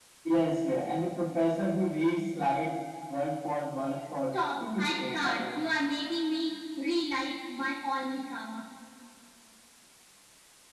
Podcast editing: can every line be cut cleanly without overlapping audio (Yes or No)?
No